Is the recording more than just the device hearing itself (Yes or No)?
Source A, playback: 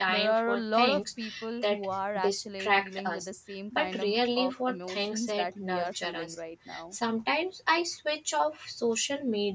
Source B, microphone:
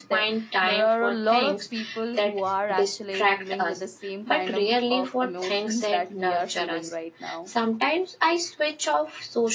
No